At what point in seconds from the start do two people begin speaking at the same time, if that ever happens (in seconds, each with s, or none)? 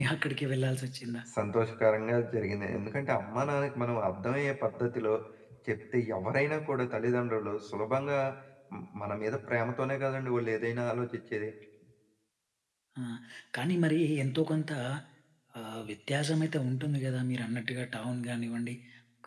none